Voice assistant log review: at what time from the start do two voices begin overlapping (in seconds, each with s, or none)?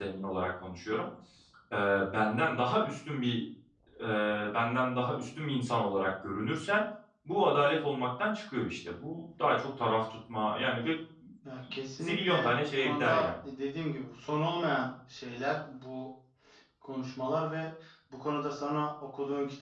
12.0 s